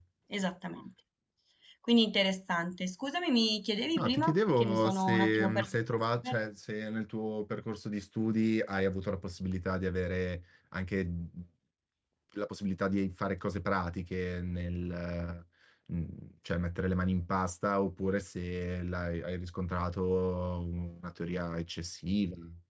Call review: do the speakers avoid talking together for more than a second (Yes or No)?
No